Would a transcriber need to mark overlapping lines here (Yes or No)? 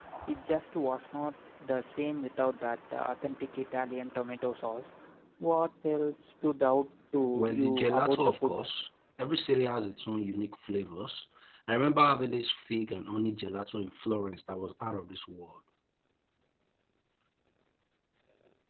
Yes